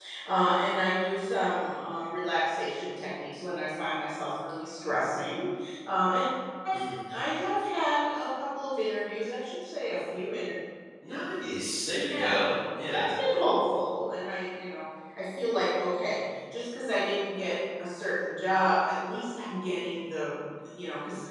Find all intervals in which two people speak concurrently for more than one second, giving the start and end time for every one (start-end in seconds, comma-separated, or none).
none